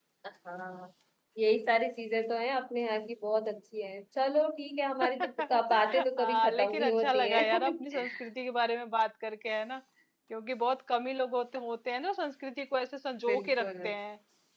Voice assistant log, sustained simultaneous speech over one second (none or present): present